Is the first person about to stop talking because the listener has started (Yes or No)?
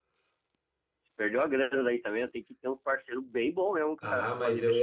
Yes